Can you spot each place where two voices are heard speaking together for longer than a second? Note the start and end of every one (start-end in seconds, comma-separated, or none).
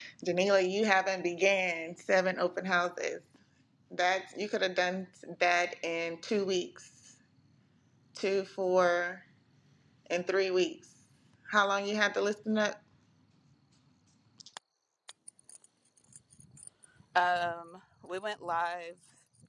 none